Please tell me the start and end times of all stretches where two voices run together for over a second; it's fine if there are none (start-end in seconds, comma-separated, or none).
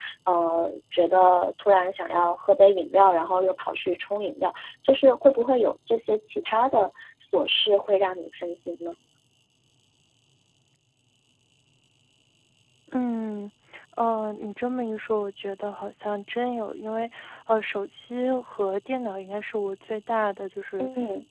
none